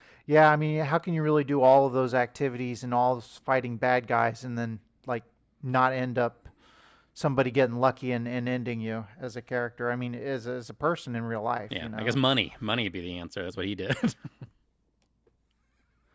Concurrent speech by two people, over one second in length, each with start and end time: none

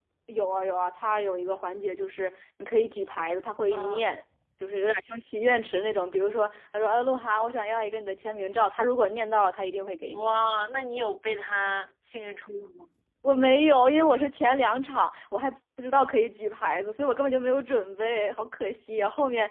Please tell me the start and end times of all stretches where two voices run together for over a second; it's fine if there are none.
none

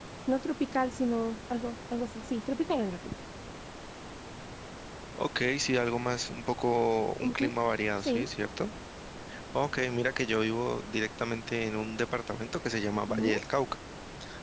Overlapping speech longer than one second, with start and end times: none

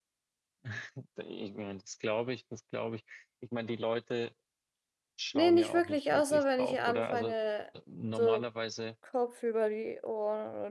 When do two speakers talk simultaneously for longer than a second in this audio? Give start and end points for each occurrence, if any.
5.3-7.3

